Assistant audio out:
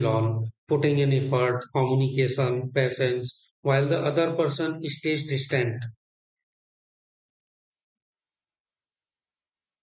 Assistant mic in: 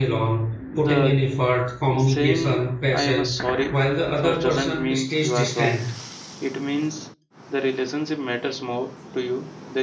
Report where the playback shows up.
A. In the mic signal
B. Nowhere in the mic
A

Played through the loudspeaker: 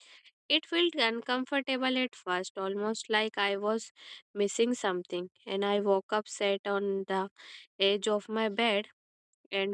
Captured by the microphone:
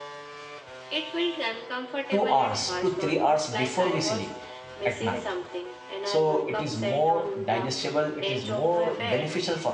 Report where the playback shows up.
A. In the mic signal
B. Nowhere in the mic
A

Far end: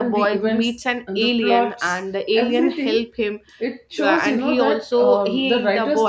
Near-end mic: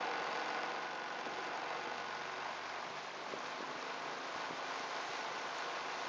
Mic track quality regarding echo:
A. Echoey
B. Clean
B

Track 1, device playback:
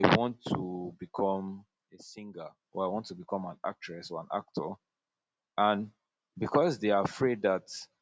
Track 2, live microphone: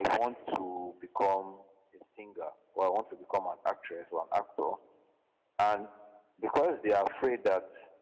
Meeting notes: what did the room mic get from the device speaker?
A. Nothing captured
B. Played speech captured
B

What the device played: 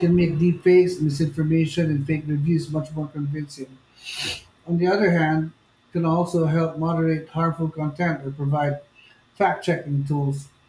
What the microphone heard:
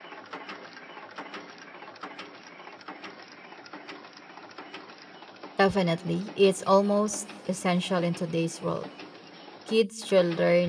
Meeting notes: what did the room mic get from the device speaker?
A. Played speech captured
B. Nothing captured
B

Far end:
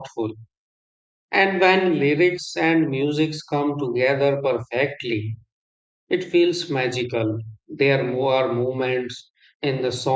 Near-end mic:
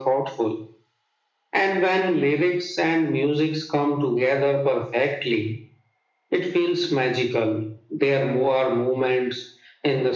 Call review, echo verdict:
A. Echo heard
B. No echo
A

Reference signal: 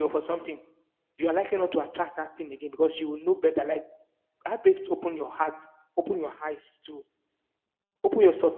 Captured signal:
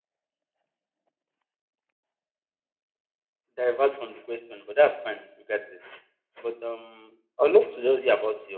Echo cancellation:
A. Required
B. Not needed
B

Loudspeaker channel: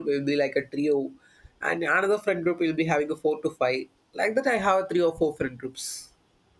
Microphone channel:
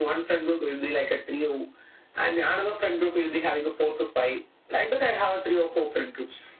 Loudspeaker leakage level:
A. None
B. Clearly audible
B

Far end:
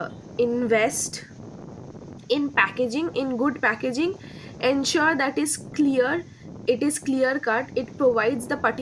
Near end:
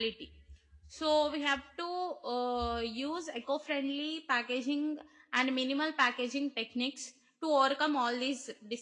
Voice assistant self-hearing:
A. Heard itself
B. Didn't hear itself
B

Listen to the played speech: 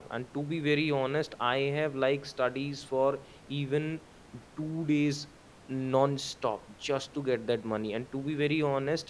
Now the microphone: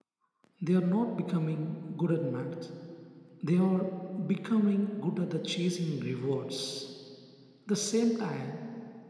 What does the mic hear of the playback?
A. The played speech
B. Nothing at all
B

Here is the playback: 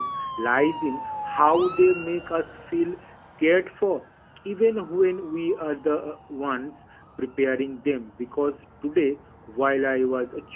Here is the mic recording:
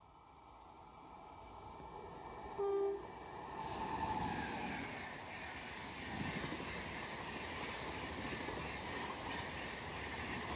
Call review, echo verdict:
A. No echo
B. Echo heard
A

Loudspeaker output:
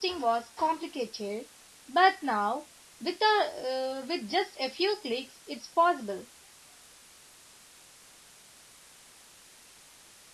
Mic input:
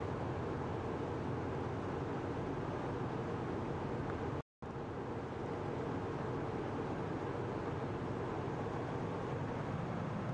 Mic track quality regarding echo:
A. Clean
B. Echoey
A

